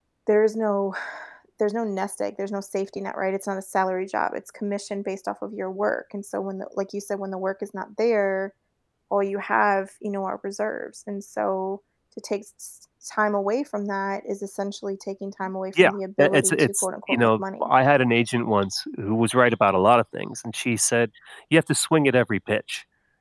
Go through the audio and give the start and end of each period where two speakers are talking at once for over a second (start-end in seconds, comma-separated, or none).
15.8-17.7